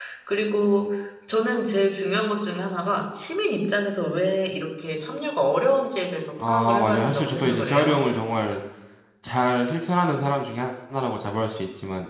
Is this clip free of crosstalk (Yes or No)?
No